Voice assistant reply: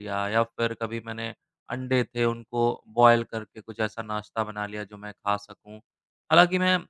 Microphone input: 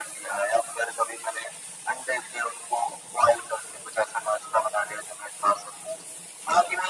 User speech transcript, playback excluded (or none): none